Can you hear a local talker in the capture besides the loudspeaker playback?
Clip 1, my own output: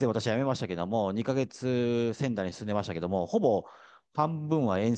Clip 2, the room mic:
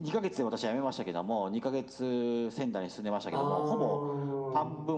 Yes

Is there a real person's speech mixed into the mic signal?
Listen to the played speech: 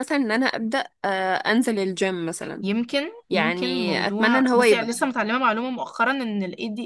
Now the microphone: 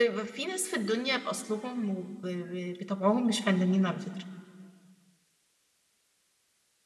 Yes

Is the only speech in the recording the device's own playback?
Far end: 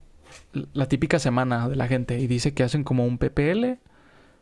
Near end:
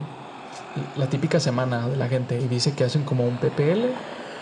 Yes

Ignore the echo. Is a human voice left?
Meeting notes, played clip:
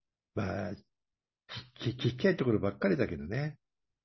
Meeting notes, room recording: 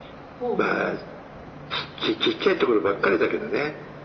Yes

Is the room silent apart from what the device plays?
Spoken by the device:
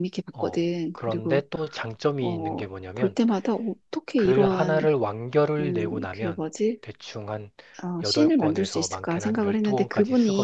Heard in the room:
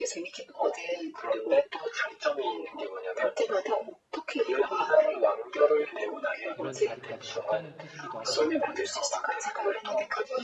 No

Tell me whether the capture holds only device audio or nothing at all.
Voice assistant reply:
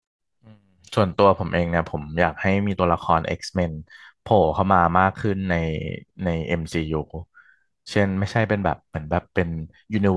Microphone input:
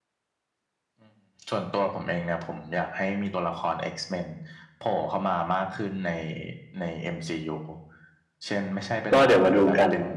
No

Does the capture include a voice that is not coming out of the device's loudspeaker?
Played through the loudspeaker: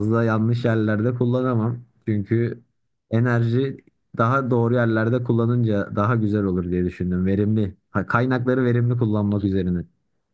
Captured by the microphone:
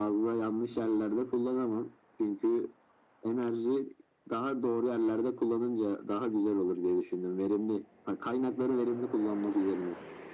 No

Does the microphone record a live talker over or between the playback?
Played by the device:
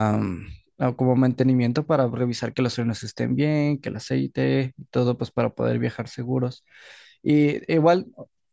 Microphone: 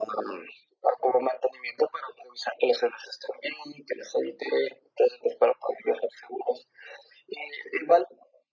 No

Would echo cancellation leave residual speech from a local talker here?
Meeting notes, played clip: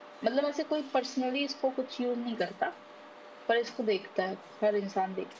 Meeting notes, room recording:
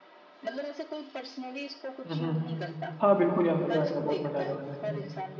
Yes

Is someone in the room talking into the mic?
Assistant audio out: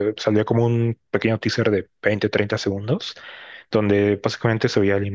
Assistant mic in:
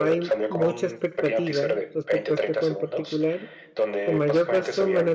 Yes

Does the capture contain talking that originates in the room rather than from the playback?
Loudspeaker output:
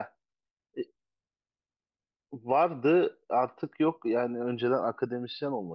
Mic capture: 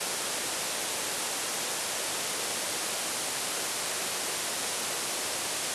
No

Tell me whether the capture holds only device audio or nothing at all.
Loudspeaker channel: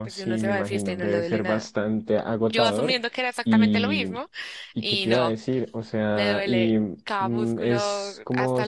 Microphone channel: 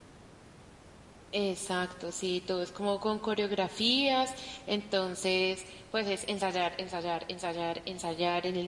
No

